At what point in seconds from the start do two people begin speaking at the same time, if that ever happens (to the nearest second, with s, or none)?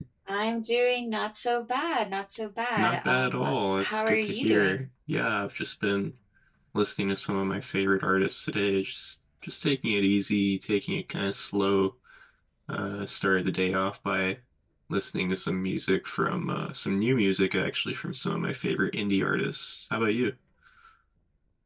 3 s